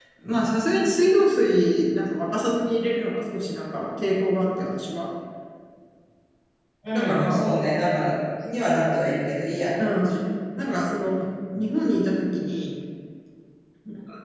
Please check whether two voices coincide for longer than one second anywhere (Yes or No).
No